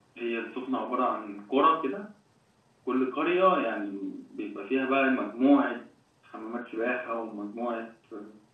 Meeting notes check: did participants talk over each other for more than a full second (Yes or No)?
No